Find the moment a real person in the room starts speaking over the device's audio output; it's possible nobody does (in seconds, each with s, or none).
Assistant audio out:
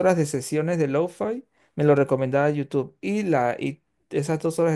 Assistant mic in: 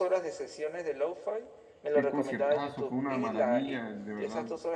1.9 s